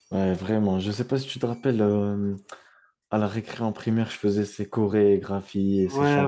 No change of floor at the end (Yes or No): No